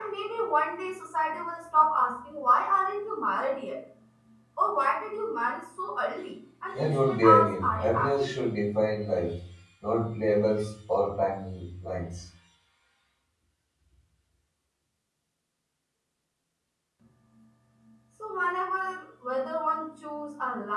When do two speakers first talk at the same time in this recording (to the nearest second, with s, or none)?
7 s